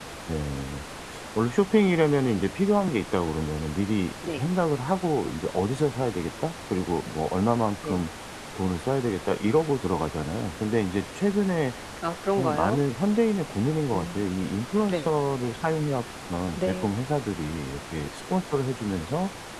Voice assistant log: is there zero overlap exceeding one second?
Yes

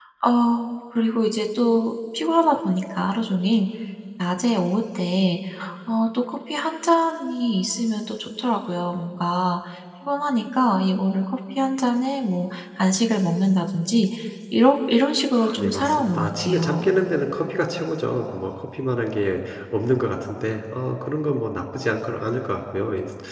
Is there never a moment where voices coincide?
No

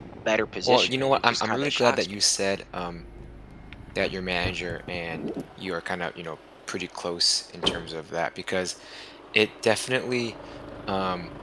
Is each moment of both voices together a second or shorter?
No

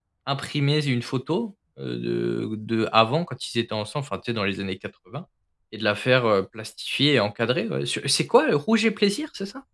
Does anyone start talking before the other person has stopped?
No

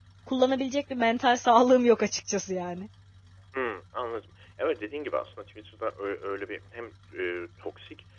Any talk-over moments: No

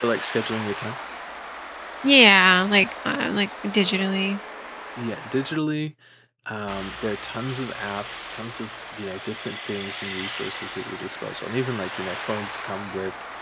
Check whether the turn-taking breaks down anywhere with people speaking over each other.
No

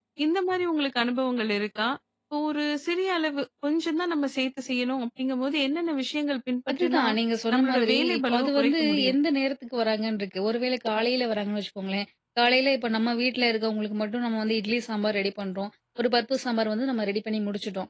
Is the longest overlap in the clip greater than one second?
Yes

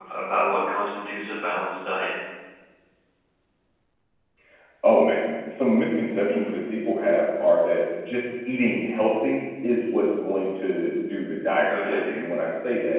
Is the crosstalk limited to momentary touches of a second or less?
Yes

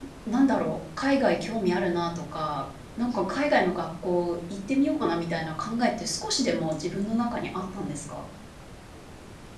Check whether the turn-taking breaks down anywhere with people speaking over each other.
No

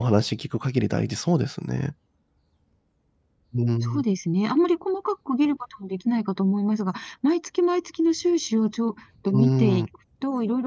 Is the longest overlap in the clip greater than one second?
No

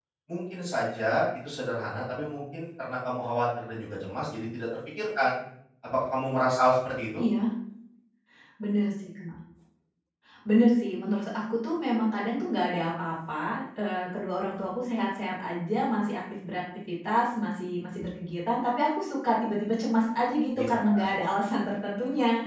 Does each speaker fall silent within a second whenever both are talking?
Yes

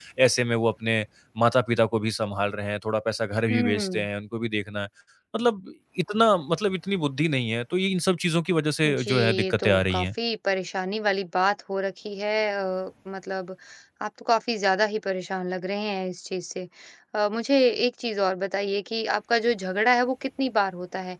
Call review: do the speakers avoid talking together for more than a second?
No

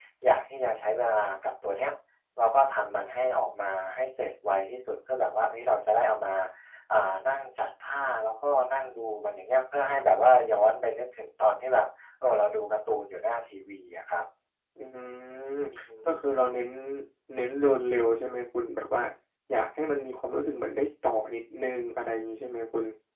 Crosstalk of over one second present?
No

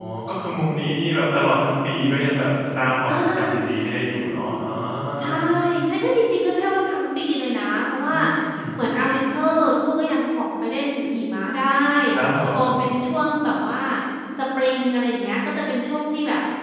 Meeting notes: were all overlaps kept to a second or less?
Yes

